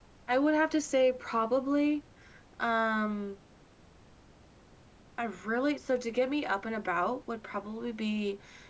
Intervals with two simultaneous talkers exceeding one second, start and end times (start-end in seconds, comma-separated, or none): none